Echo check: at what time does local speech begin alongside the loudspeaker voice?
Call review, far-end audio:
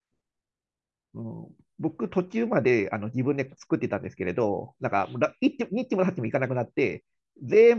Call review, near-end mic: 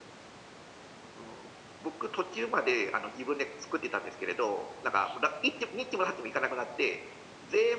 none

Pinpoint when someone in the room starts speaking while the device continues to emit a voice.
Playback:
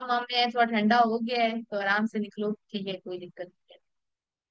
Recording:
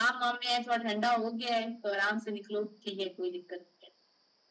none

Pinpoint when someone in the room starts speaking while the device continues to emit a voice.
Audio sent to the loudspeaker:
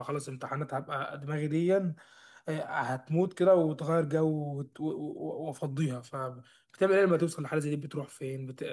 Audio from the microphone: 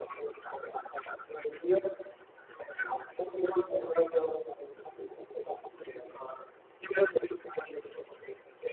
none

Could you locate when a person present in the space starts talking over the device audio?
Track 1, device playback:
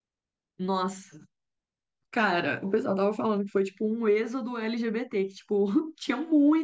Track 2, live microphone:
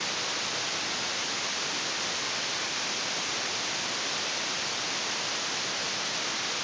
none

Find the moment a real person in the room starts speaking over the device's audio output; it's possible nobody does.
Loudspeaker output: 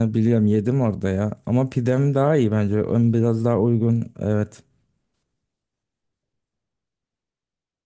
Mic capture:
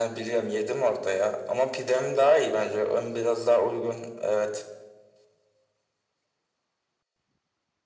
none

